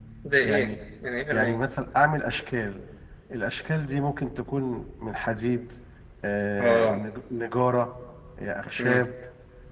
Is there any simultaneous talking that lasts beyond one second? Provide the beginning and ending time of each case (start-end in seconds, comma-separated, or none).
none